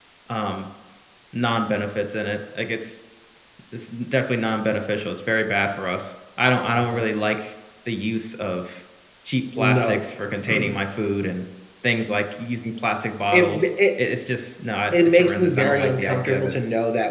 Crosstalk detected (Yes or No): Yes